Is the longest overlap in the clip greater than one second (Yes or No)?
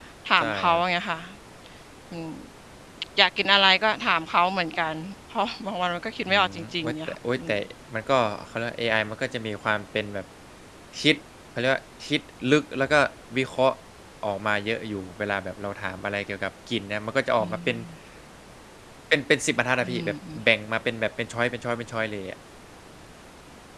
Yes